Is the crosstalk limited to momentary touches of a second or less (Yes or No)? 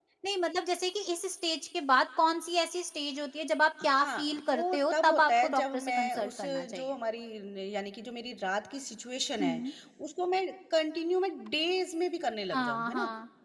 No